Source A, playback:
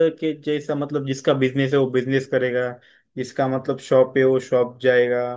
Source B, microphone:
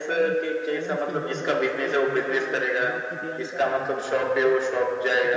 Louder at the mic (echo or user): echo